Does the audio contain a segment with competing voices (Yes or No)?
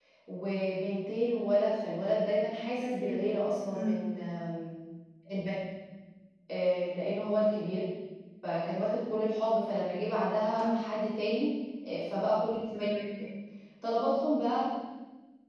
Yes